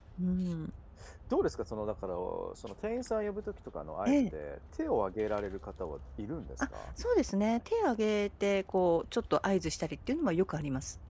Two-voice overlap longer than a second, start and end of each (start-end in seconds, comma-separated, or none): none